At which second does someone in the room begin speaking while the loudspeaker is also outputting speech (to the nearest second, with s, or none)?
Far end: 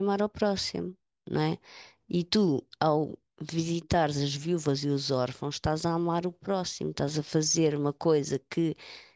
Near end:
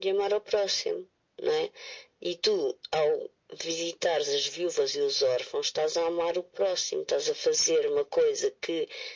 none